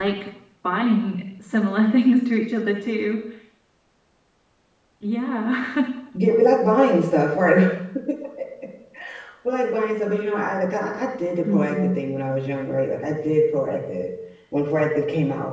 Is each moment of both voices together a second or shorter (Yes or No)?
Yes